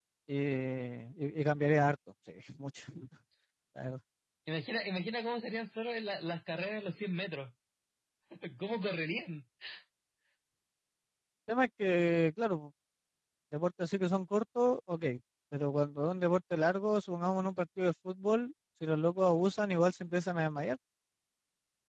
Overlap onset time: none

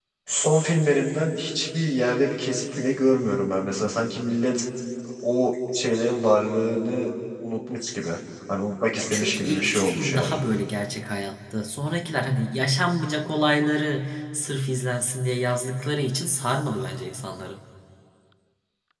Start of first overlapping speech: 9 s

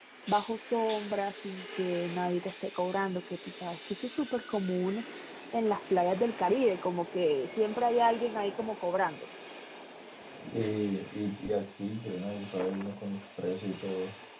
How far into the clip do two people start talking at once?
none

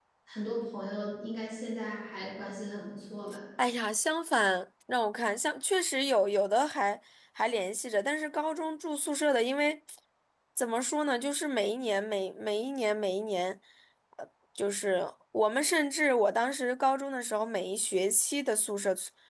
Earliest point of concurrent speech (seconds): none

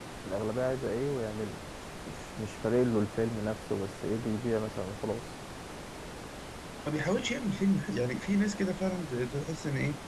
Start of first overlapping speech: none

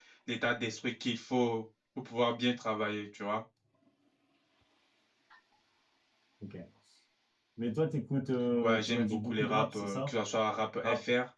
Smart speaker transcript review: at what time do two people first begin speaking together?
9 s

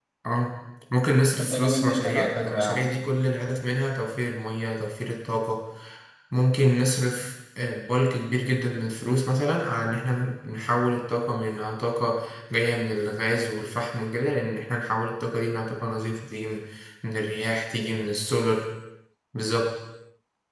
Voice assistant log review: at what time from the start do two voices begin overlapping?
1 s

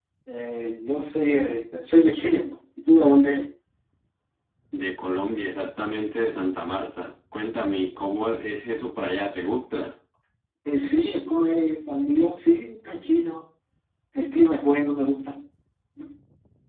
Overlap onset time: none

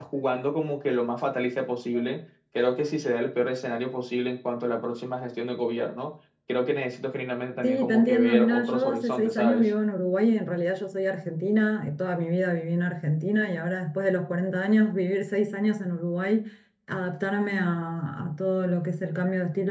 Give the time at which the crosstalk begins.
8 s

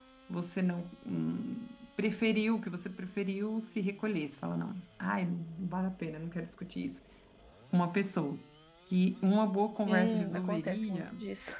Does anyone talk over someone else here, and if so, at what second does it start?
10 s

